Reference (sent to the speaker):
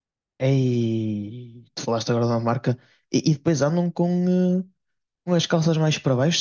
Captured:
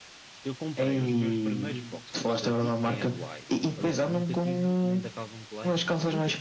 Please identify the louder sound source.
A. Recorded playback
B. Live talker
A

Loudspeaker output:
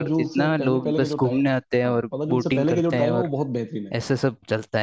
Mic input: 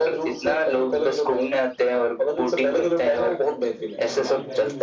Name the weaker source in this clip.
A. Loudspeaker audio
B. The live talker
B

